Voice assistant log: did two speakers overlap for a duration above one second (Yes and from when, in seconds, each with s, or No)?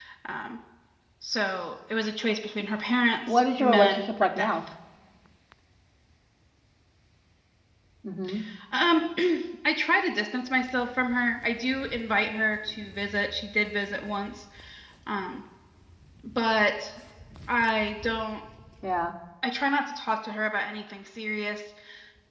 Yes, from 3.3 s